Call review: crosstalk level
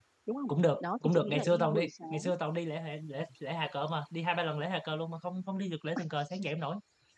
present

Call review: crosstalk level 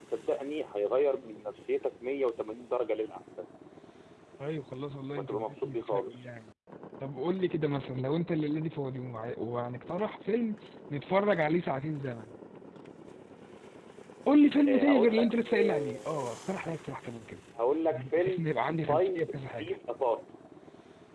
present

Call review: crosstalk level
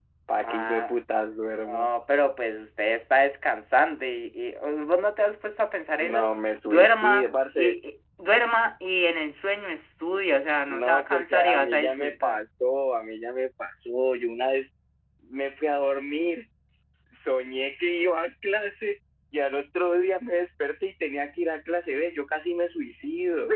present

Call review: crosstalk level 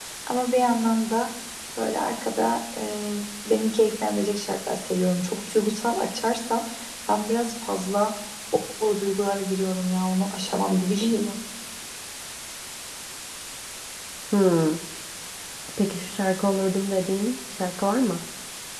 none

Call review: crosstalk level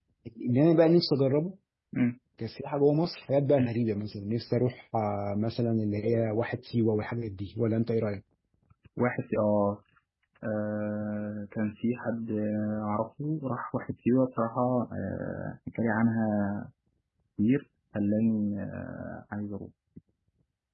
none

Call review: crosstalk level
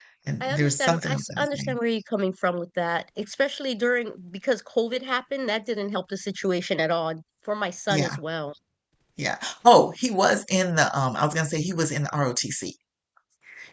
present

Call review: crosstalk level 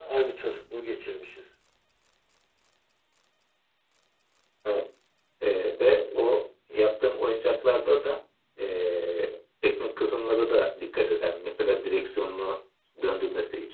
none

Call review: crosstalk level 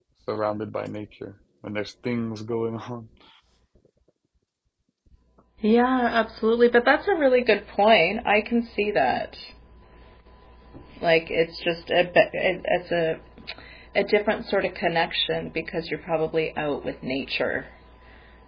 none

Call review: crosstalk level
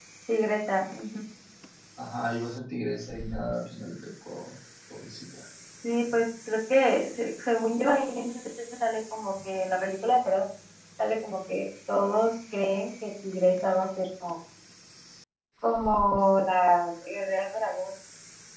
none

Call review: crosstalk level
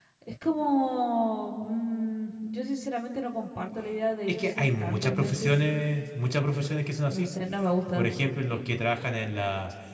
present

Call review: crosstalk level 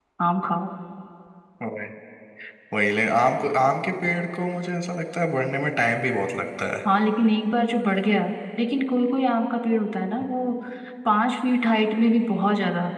none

